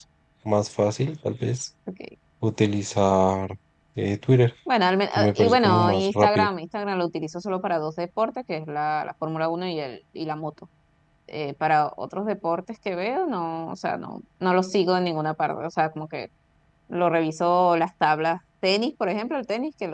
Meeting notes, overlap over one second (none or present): present